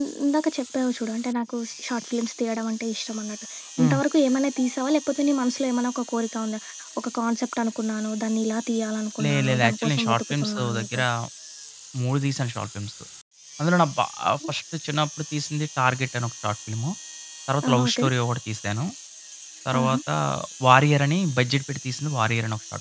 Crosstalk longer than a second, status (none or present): present